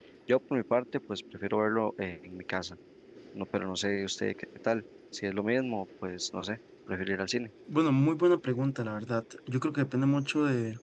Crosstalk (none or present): none